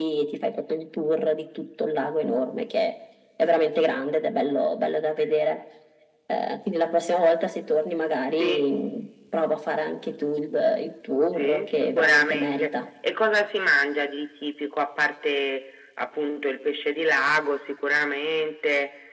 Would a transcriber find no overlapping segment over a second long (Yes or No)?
No